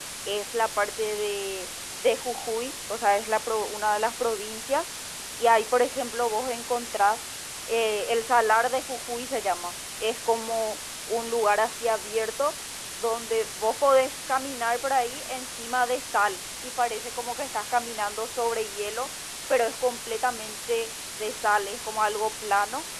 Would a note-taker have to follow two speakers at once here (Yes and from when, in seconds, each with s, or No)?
No